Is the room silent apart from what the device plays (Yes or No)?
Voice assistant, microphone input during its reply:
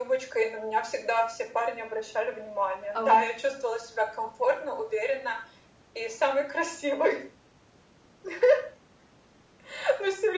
No